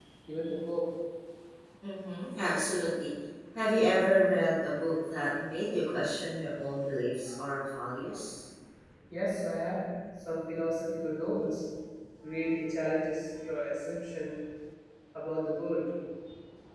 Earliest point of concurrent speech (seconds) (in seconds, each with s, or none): none